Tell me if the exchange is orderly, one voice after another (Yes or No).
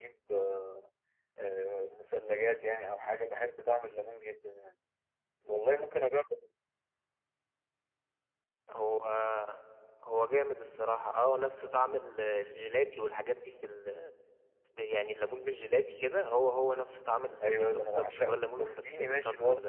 No